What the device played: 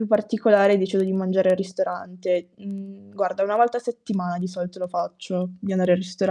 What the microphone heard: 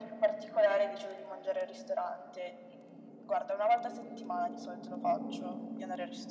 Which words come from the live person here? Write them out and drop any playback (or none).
none